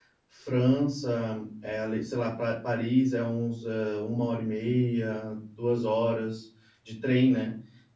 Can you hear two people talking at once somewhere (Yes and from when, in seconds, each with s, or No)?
No